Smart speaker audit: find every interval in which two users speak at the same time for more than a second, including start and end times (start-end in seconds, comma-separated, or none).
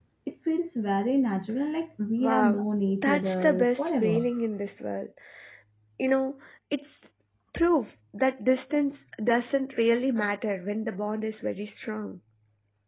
3.0-4.3